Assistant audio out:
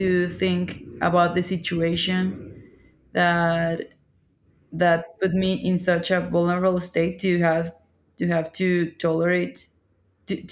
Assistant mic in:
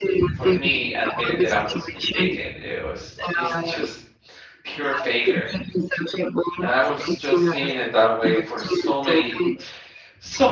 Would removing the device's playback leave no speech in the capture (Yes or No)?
No